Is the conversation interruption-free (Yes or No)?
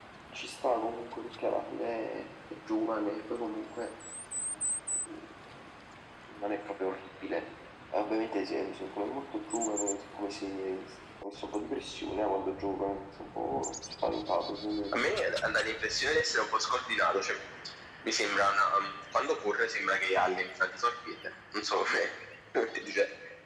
Yes